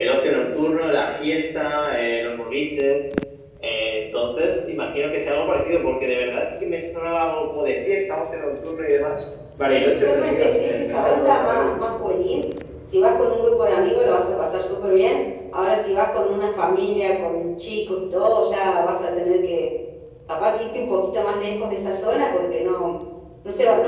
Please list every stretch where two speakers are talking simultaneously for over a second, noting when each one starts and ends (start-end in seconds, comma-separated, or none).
9.6-11.7